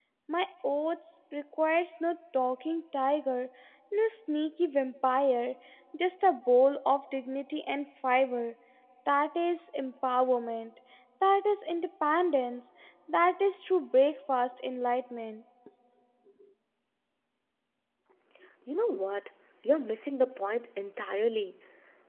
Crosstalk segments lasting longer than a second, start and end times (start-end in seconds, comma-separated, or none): none